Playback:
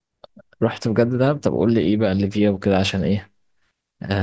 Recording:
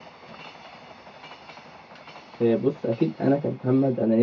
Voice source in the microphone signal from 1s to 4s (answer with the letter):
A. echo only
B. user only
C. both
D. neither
B